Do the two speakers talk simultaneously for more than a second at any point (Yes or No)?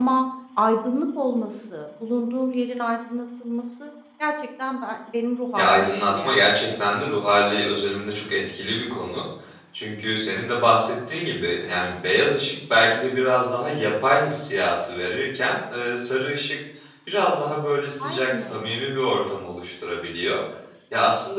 Yes